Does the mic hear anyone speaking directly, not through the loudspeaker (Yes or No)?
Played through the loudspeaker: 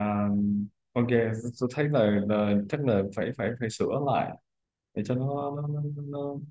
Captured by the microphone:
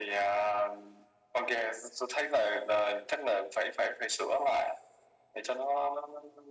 No